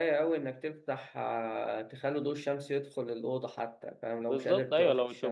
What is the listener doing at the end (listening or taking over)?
taking over